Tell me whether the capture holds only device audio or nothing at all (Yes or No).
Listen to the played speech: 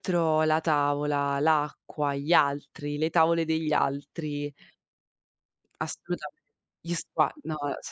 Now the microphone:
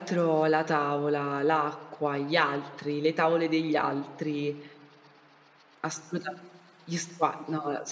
Yes